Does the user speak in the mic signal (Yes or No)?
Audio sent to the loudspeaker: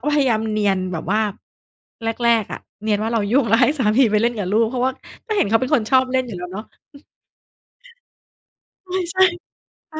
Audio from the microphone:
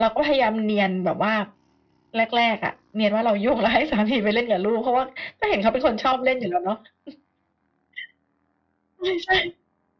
No